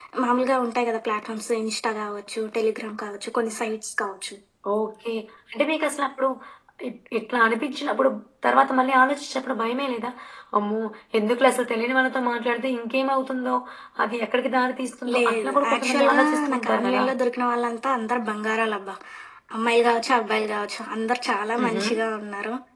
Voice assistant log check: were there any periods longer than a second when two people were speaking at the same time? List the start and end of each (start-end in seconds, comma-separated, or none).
15.2-17.0